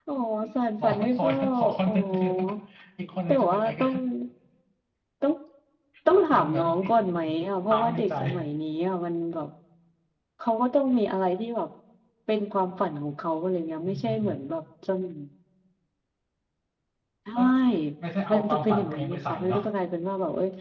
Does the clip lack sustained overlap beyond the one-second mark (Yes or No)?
No